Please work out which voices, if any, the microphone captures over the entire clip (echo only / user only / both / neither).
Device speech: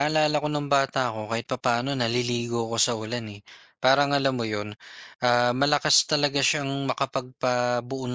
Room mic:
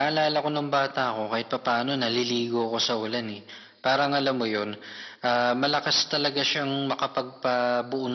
echo only